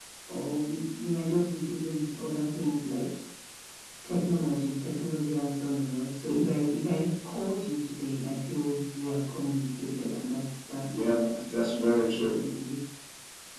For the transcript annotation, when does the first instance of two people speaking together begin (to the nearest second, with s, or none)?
11 s